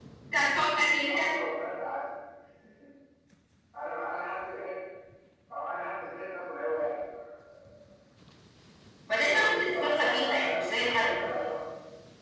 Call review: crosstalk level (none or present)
present